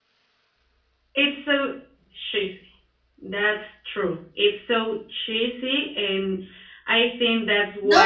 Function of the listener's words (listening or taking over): taking over